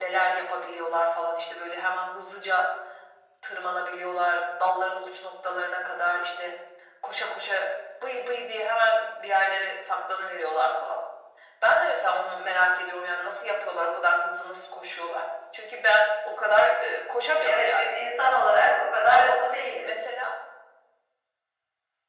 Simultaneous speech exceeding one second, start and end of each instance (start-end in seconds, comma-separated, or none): none